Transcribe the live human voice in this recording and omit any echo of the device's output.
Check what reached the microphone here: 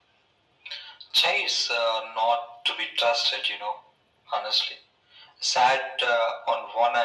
none

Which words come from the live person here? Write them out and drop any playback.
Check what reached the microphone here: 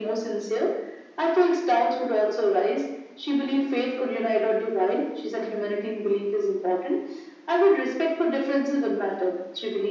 none

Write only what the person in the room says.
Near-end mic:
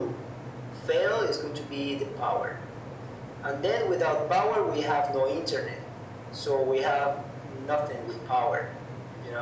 none

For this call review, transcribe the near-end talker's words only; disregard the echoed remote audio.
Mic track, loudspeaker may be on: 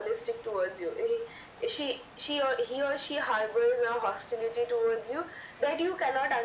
none

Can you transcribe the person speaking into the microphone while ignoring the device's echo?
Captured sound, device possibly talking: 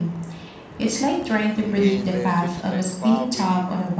In the 2025, we

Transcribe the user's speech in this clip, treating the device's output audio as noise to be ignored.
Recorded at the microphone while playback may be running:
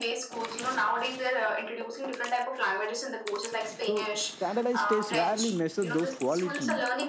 so standardized tests rarely measure those quality

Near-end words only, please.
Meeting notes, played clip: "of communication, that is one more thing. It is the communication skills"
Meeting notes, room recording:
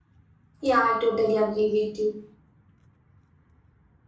yeah i totally agree with you

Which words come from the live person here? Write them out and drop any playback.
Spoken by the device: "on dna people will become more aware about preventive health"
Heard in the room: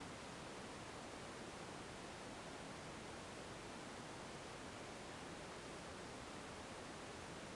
none

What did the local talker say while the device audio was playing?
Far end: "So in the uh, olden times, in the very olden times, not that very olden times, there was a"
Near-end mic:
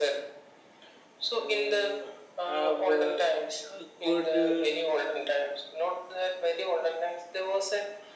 uh, have uh, a good uh,

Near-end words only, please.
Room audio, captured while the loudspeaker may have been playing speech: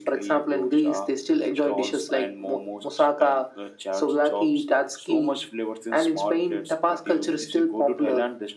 none

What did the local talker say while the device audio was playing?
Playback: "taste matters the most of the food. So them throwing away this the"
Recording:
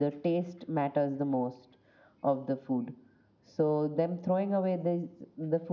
none

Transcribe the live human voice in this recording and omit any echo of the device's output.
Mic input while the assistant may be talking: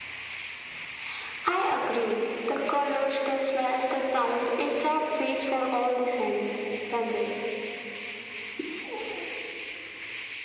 none

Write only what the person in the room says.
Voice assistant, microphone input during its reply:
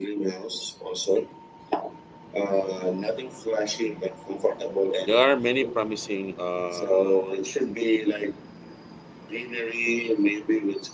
there are many promising uh,

